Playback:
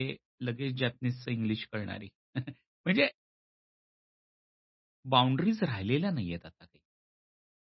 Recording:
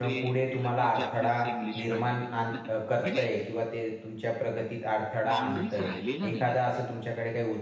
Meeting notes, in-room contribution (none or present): present